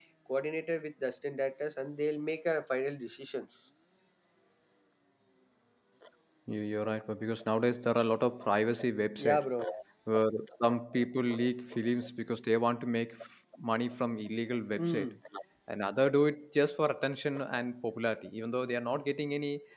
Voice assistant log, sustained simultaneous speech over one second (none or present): none